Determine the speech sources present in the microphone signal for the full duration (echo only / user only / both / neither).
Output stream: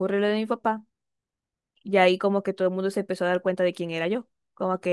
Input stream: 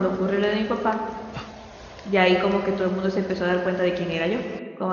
echo only